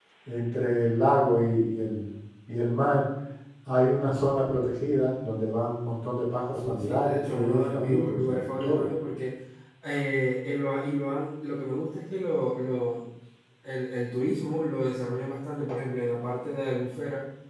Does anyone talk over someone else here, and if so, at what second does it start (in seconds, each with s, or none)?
6.3 s